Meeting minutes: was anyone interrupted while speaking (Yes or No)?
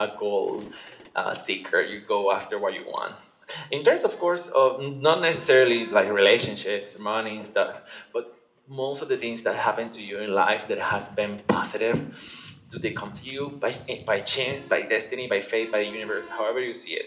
No